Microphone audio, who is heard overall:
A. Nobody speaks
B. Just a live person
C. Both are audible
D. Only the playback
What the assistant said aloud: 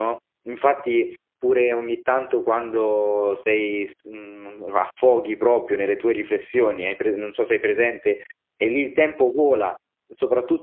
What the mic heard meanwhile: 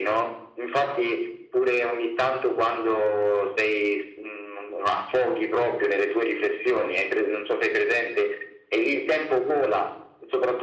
D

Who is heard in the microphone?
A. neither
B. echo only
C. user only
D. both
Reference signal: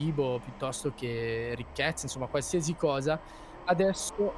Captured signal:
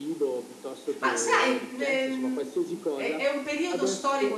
D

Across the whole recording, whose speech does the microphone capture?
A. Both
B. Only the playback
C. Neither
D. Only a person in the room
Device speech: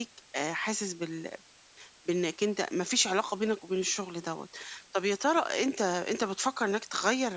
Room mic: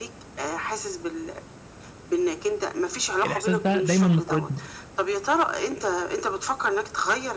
A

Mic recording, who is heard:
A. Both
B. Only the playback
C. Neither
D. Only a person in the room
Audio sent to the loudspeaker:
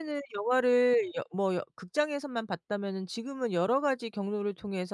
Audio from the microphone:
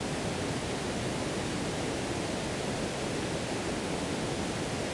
C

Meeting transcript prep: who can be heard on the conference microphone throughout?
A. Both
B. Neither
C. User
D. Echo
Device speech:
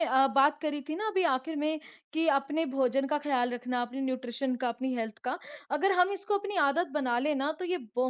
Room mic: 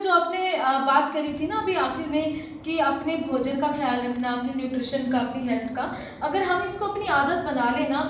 D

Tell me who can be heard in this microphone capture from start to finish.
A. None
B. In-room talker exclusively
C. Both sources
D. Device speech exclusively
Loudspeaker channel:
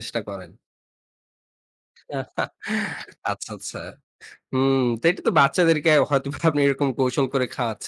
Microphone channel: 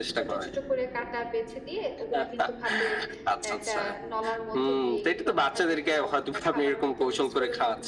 C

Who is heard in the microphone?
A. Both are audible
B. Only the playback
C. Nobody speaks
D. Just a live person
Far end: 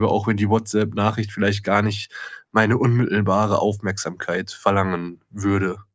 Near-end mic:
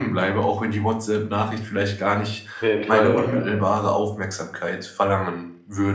A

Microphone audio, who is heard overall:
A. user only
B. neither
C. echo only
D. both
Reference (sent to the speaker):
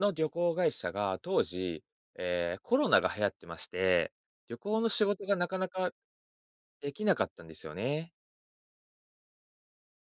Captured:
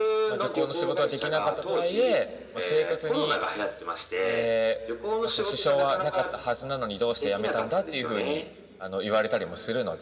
D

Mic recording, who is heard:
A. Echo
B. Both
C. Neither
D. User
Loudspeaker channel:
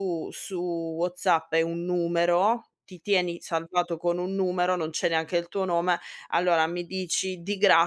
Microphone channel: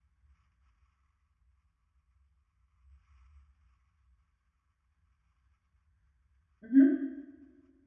D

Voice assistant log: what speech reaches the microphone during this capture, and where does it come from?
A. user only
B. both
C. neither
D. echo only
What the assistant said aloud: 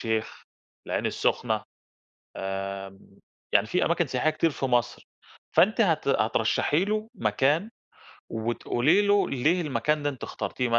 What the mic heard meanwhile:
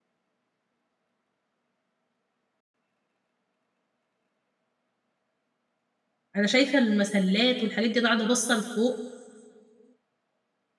A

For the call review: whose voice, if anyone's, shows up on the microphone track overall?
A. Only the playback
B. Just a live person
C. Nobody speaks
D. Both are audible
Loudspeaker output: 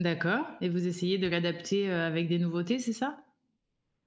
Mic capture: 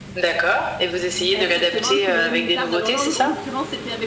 D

